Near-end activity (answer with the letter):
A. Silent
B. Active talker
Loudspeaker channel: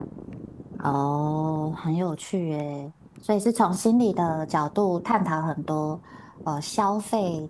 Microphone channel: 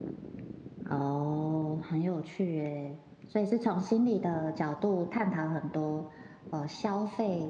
A